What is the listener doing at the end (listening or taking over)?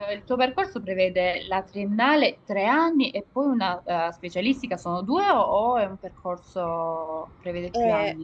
taking over